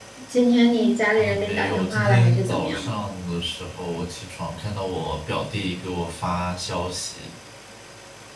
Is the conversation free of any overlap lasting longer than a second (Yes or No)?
No